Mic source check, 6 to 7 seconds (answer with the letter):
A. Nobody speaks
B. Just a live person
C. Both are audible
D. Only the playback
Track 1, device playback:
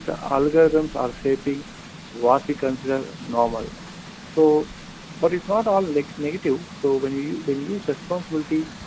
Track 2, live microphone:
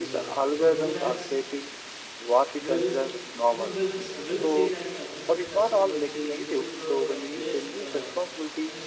C